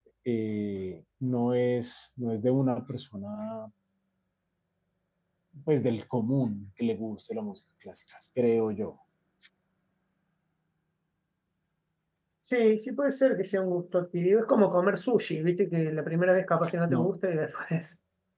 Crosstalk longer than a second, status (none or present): none